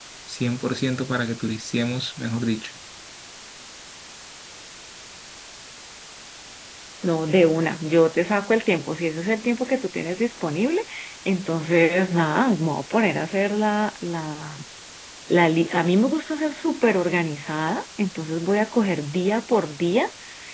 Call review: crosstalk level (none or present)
none